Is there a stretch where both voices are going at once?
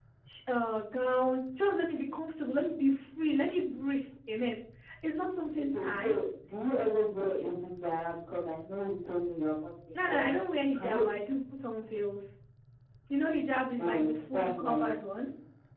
Yes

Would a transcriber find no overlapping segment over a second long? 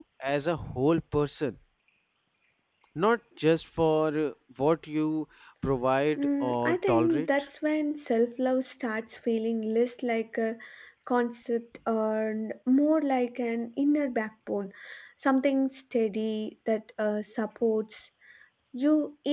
No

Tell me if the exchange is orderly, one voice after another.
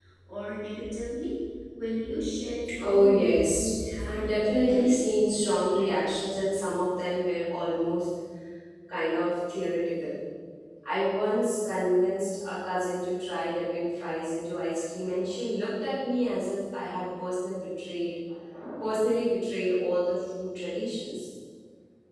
No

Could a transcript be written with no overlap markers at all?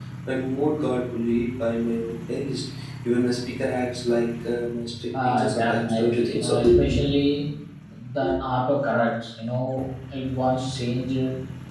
No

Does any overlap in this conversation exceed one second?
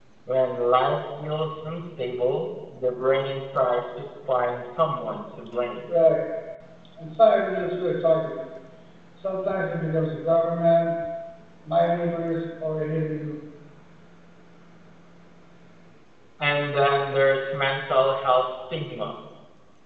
No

